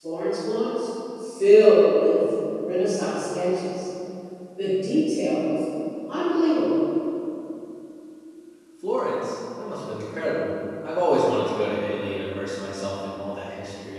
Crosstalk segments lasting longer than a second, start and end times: none

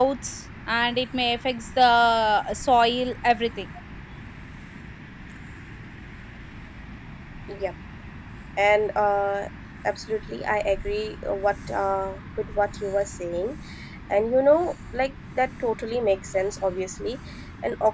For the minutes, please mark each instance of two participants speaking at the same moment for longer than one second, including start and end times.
none

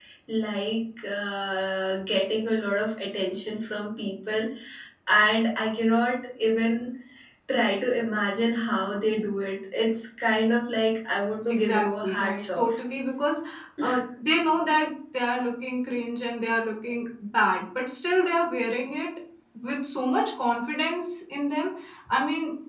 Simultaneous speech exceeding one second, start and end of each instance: 11.5-12.8

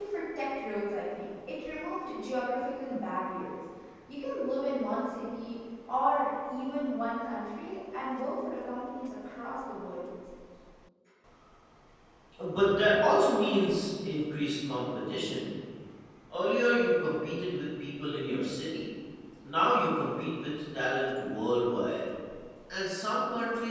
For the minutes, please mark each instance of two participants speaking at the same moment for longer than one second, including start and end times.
none

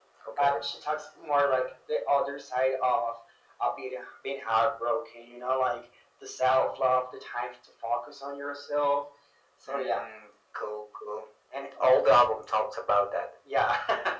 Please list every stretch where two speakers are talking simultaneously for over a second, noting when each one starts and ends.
none

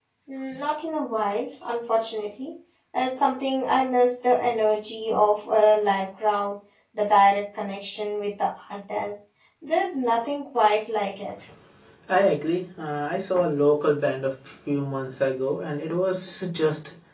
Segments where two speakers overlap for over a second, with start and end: none

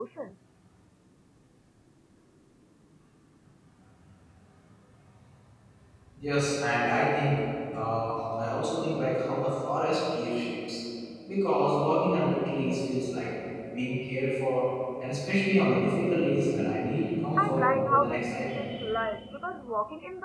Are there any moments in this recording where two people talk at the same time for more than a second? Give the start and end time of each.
17.4-18.7

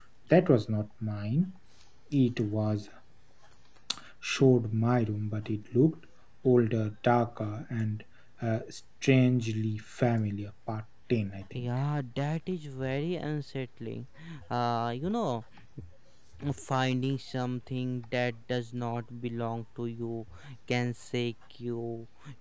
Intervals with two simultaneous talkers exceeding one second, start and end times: none

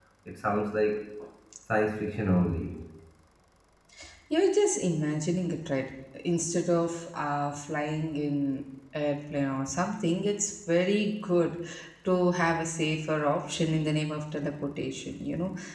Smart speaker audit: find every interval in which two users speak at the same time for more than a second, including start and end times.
none

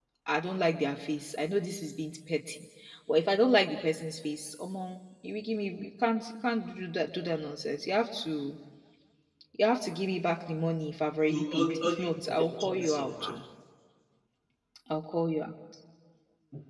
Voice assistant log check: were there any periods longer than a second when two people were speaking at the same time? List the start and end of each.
11.3-13.3

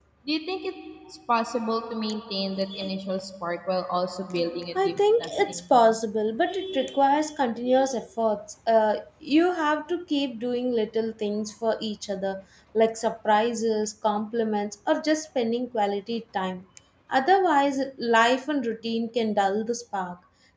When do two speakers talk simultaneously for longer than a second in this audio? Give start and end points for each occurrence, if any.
4.8-6.0

